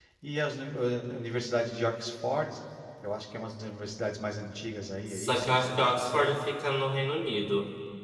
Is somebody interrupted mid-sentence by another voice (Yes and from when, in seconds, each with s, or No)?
Yes, from 5.1 s